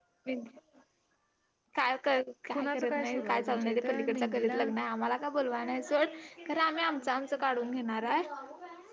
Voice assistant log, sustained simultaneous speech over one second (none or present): present